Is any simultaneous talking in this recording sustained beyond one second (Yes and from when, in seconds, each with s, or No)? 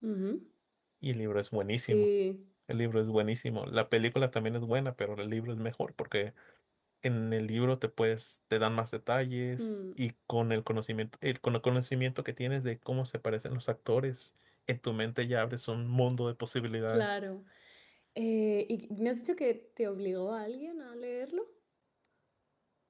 No